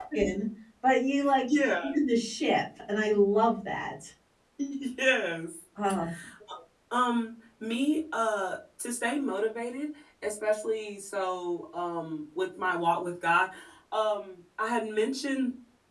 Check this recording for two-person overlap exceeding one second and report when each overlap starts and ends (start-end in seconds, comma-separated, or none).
none